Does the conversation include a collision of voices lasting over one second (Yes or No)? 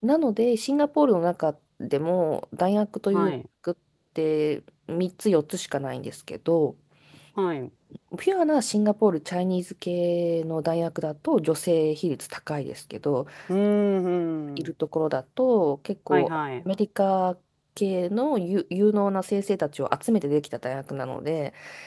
No